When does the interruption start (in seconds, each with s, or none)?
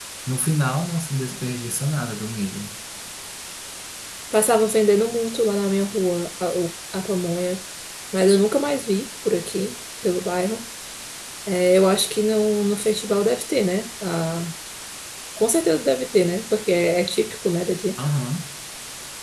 none